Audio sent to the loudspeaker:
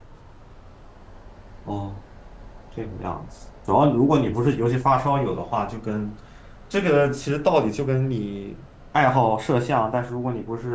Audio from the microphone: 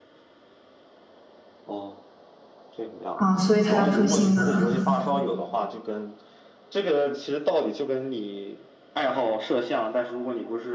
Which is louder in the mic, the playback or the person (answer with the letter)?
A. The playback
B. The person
B